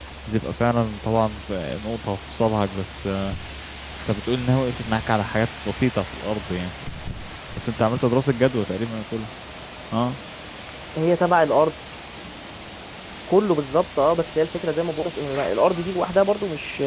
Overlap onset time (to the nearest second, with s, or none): none